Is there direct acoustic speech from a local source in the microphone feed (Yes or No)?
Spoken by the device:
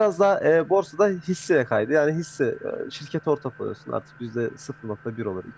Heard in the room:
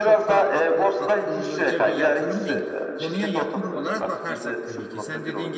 Yes